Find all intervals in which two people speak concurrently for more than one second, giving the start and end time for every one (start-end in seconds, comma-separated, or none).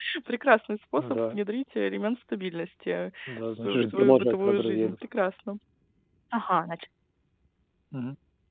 3.3-5.0